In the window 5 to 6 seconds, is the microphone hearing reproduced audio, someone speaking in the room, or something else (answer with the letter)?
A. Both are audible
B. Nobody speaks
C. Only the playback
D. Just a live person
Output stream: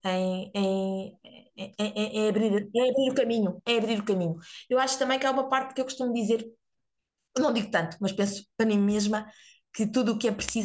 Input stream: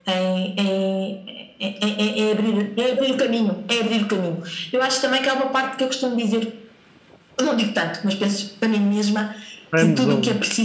C